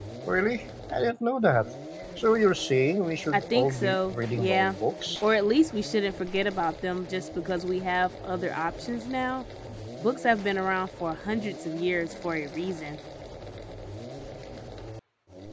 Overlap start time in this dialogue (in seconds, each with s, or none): 3.3 s